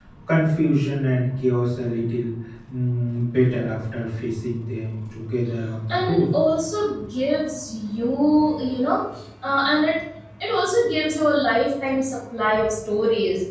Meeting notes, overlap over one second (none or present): none